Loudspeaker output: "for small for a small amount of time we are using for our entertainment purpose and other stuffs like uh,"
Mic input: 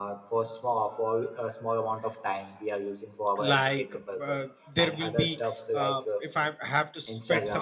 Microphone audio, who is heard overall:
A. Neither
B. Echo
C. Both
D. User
C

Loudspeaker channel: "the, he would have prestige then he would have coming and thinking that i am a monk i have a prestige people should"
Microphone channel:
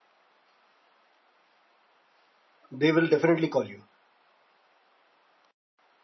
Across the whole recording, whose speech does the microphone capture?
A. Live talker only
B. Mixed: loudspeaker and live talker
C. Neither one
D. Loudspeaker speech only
A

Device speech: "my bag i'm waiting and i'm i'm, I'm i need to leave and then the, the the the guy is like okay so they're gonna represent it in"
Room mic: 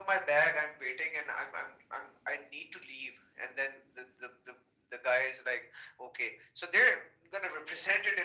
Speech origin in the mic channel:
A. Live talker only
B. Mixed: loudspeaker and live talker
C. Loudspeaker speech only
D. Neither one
C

